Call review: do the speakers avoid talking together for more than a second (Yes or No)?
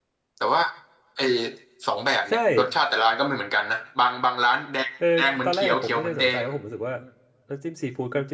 No